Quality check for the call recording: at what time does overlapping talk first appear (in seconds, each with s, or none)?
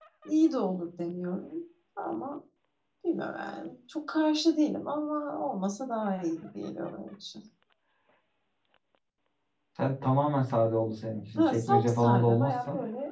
11.4 s